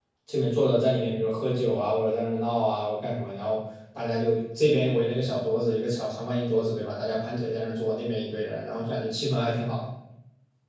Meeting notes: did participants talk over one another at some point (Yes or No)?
No